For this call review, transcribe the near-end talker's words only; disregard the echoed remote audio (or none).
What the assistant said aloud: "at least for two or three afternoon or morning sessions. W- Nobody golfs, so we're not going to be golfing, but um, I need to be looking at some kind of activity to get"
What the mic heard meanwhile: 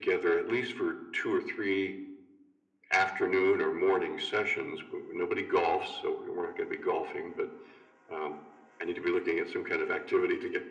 none